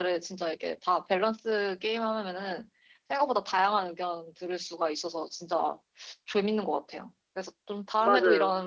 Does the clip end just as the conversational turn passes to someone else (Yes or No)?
No